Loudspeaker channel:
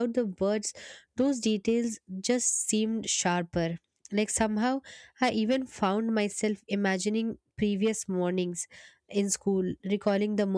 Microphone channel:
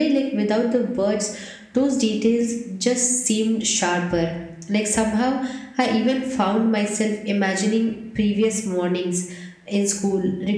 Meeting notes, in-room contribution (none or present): none